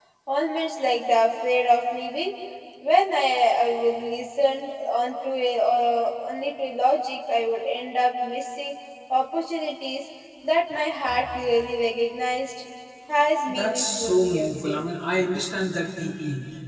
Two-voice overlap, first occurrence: 13 s

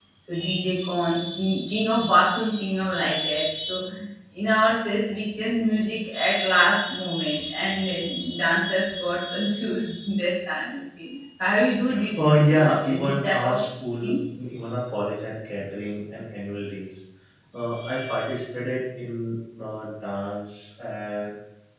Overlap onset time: 12 s

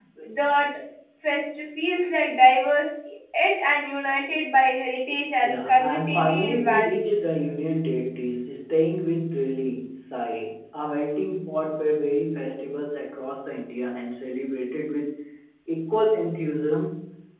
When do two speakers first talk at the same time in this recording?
5 s

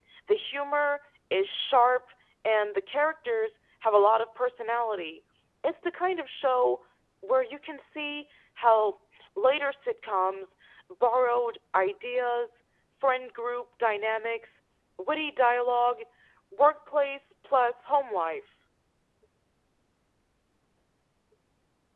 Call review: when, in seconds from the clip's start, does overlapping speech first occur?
none

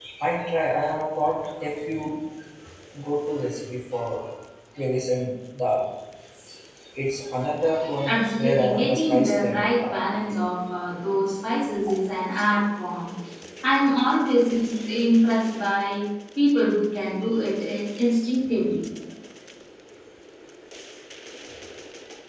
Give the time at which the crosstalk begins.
8 s

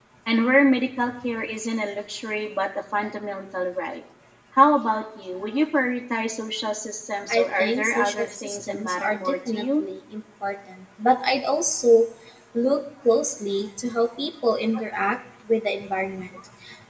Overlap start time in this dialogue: 7 s

